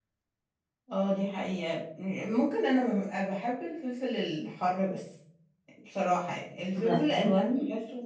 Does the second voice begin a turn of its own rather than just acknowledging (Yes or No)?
No